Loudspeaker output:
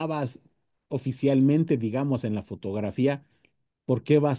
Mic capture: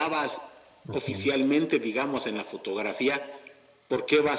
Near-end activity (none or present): present